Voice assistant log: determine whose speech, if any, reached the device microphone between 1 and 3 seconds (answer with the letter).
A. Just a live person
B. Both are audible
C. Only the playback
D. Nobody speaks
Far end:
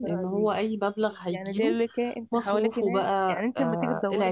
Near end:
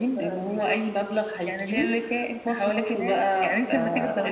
C